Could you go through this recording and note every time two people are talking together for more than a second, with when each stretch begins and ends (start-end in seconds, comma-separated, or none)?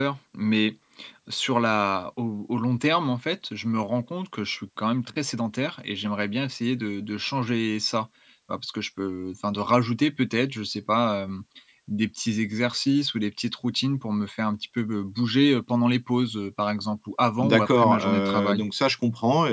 17.4-18.6